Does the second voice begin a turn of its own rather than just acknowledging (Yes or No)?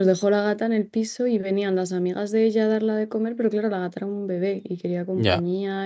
No